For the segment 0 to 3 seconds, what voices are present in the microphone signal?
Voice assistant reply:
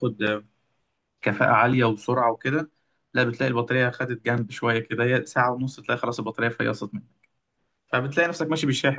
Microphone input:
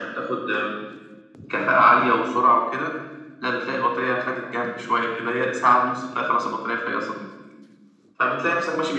echo only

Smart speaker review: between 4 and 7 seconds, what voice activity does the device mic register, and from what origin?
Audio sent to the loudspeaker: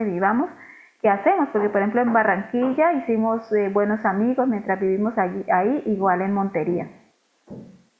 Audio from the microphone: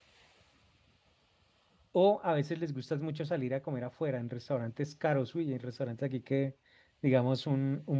user only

